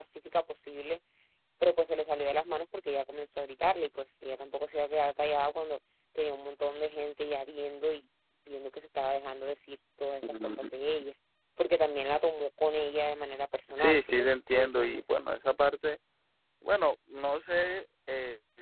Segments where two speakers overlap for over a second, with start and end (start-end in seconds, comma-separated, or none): 13.8-15.0